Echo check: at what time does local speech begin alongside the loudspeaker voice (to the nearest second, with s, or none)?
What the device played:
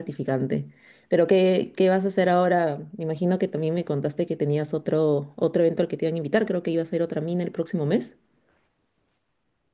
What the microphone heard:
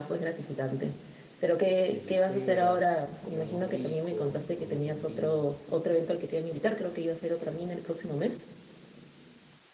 2 s